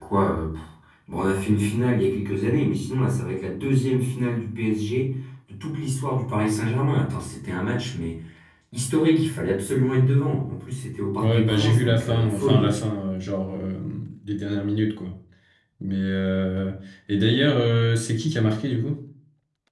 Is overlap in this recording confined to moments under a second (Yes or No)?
No